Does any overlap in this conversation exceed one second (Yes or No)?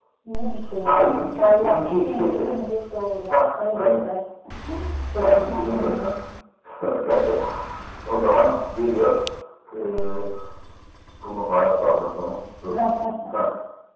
Yes